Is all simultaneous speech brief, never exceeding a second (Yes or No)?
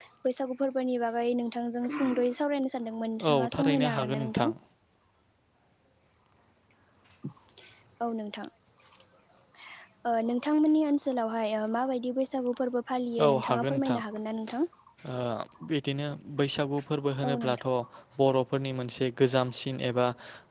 No